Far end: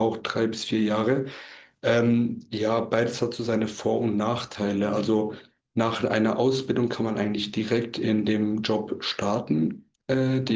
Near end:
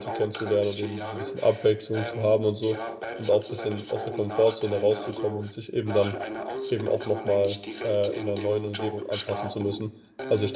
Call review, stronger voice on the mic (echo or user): user